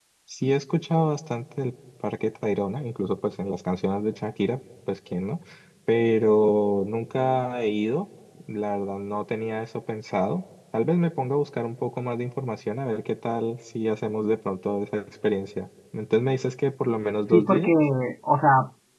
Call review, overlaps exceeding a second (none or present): none